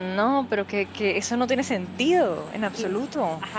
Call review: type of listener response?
taking over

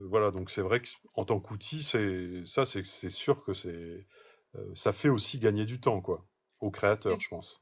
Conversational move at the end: taking over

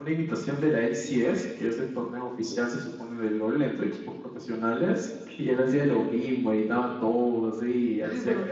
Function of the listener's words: taking over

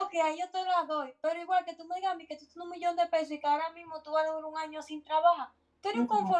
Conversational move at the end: listening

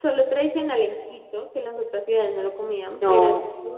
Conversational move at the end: listening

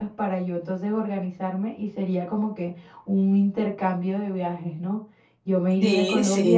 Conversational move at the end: listening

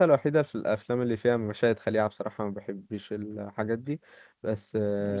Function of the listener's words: listening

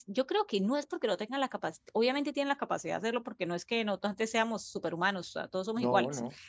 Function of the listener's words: listening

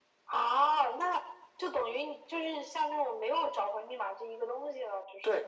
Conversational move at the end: taking over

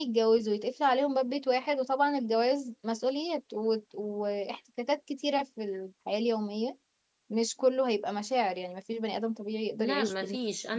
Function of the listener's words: taking over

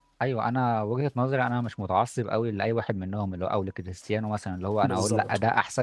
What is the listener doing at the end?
listening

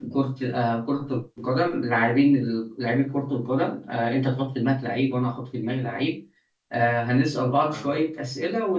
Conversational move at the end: listening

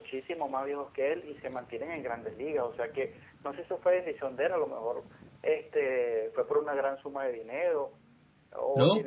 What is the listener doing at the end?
taking over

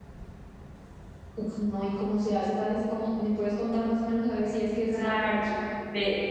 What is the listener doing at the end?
taking over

